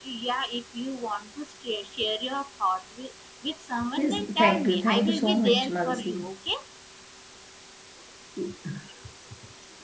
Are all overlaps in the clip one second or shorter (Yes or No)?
No